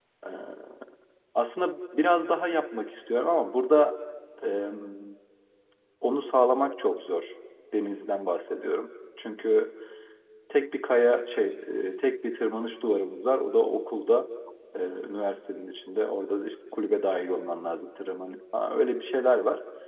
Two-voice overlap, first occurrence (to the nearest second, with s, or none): none